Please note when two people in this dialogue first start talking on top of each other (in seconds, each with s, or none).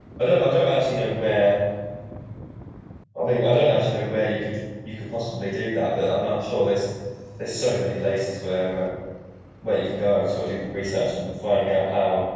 none